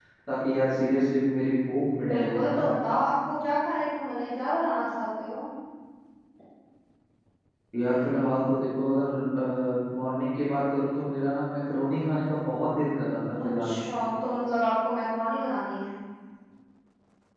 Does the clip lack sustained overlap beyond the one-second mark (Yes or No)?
Yes